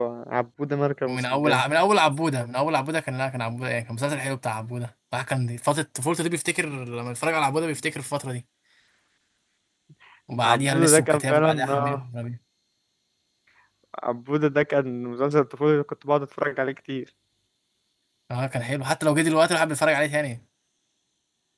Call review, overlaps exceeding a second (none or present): present